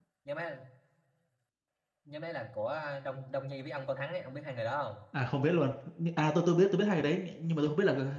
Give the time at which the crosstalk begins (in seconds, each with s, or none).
none